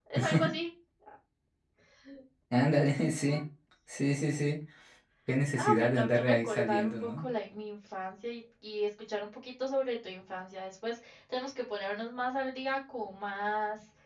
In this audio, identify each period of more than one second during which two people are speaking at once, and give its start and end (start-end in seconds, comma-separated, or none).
5.5-7.2